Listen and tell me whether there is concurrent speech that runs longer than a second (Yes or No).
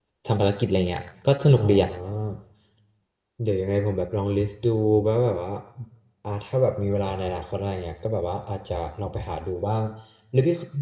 No